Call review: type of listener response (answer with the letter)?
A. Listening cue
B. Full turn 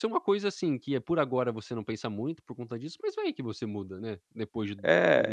B